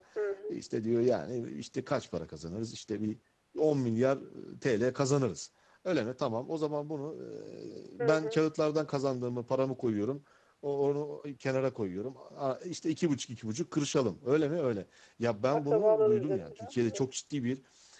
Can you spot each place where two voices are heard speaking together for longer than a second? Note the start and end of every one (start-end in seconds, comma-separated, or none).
15.5-17.0